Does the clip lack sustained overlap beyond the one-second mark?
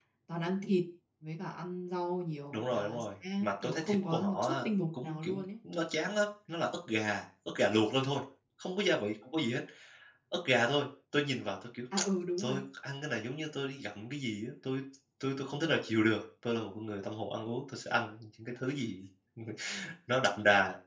No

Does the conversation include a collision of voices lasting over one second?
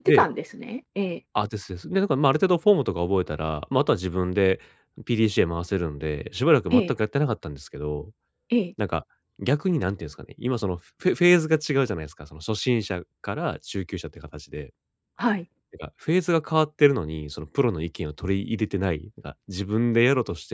No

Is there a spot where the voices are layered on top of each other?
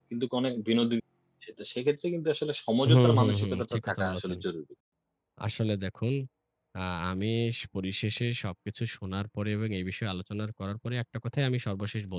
Yes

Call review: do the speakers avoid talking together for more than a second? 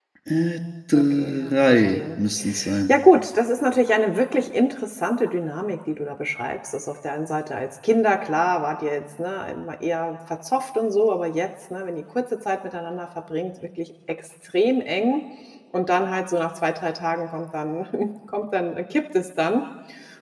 No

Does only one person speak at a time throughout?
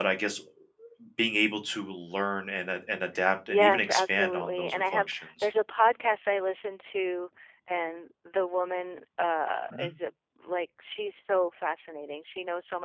No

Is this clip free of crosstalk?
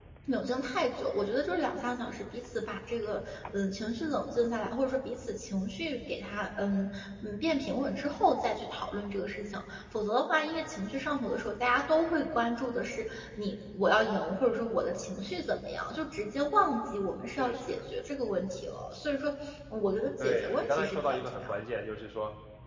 No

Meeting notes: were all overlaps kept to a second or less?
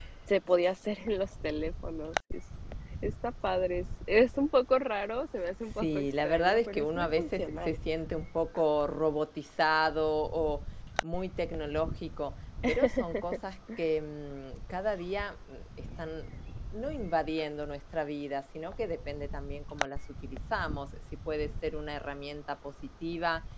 No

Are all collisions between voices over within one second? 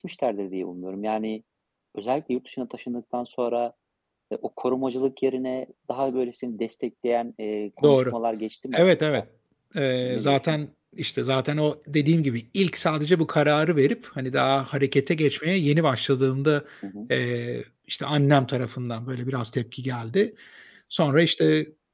Yes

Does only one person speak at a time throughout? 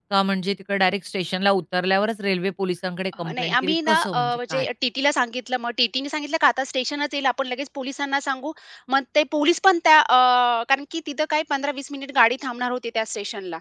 No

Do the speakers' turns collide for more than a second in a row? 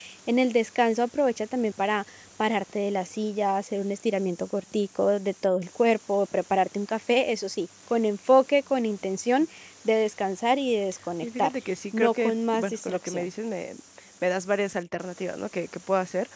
Yes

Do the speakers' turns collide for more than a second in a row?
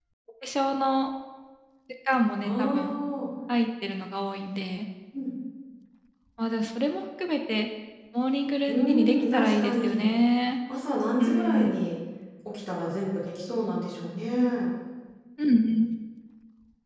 Yes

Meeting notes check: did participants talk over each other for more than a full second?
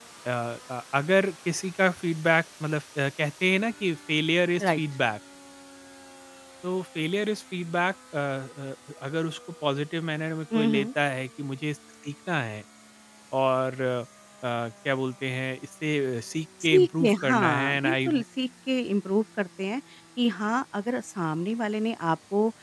Yes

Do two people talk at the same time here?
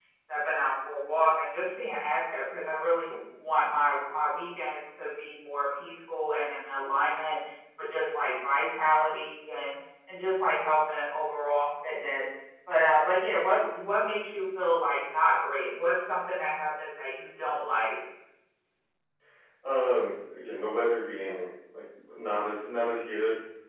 No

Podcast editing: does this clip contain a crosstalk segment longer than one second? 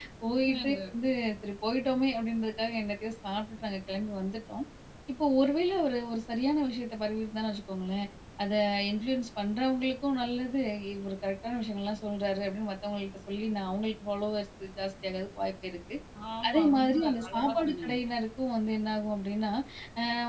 Yes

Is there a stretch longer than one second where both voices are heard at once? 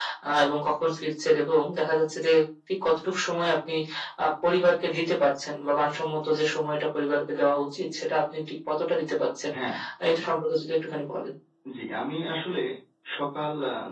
No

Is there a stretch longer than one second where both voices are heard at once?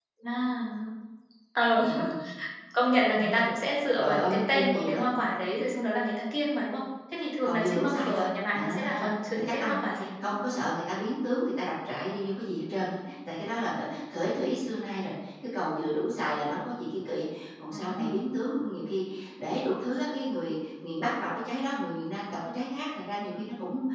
Yes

